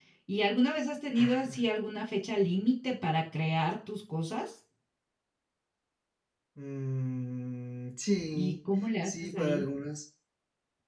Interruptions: present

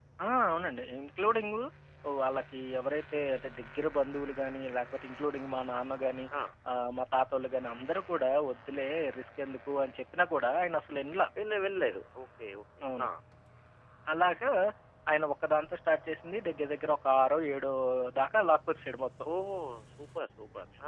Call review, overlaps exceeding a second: none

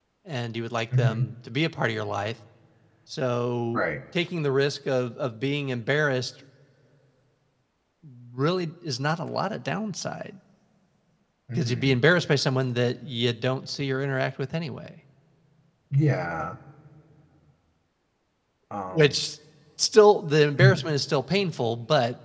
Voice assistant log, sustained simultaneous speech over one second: none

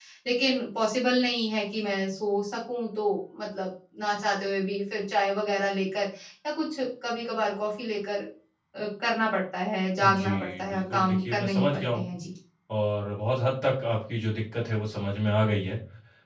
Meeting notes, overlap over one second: present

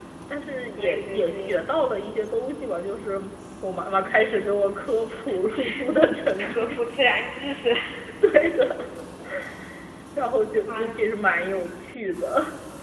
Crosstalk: present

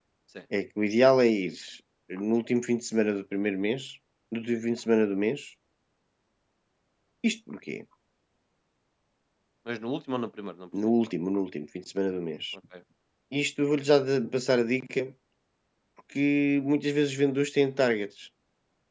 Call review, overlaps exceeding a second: none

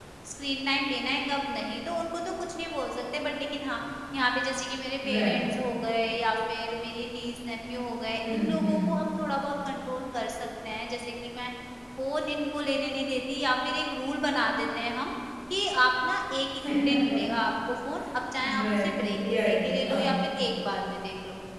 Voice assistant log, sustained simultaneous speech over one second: present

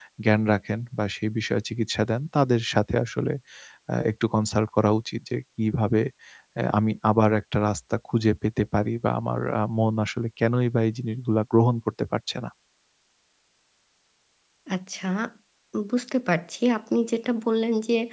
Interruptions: none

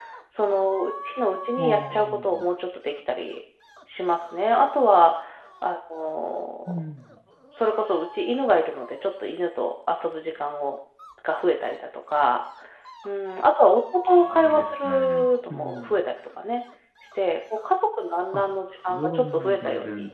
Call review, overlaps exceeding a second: present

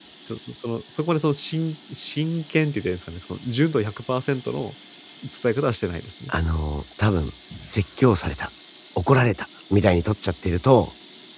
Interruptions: none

